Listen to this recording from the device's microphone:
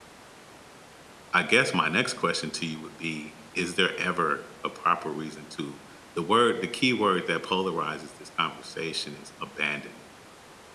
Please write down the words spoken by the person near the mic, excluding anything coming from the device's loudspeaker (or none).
I guess my next question to you would be, is there ever a proper reason to the word the key word that polarizes this conversation is abandon.